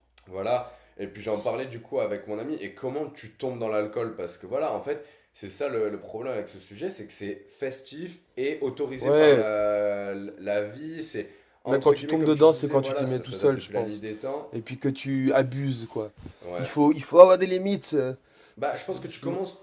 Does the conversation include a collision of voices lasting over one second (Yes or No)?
Yes